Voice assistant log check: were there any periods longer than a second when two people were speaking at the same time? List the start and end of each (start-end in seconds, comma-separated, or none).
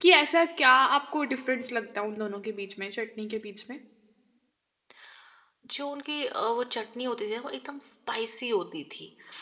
none